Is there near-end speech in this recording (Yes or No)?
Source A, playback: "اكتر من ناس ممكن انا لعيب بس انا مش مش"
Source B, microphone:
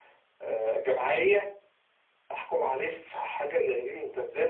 Yes